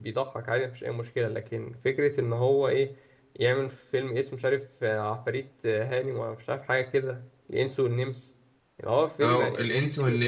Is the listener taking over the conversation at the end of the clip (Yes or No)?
Yes